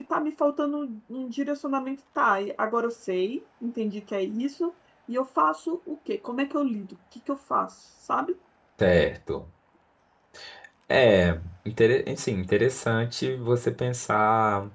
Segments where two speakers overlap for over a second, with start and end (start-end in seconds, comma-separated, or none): none